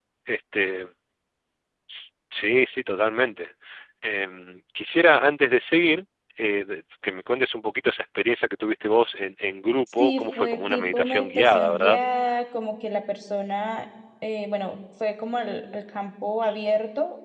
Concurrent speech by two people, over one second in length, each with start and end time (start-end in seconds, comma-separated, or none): 10.0-12.0